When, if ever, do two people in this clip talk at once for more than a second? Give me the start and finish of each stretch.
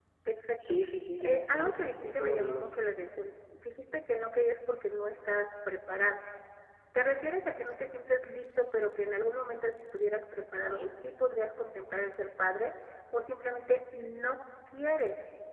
1.2-2.7

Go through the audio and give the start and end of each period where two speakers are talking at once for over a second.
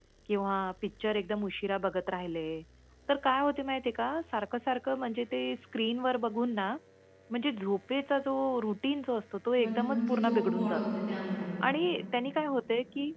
9.6-10.8

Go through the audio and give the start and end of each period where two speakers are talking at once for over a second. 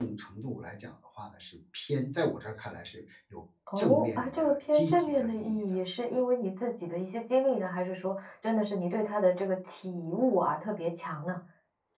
3.8-5.6

